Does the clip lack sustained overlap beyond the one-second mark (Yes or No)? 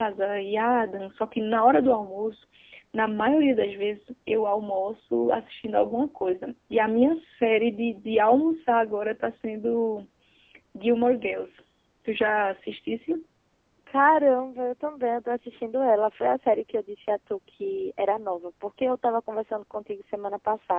Yes